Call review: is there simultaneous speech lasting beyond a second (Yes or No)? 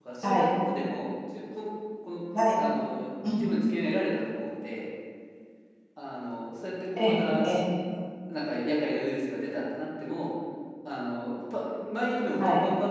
No